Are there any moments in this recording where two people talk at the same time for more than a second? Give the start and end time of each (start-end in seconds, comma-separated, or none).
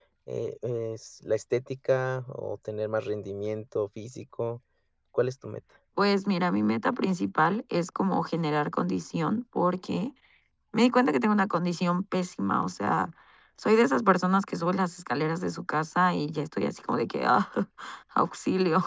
none